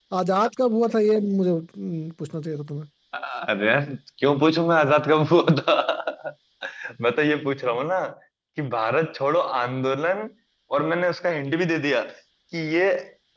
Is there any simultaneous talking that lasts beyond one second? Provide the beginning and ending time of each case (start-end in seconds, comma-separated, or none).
none